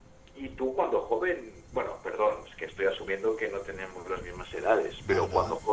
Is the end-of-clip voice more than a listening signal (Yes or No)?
No